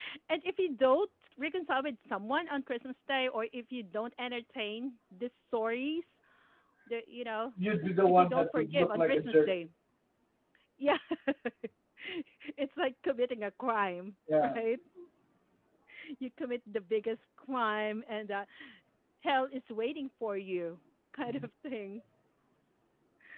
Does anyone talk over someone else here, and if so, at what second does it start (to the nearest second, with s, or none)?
8 s